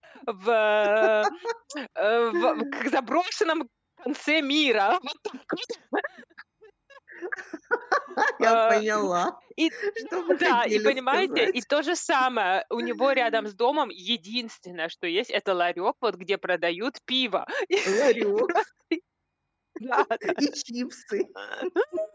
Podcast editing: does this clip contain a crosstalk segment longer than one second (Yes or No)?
Yes